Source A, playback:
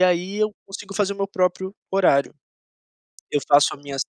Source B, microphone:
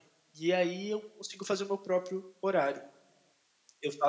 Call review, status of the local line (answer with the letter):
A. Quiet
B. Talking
A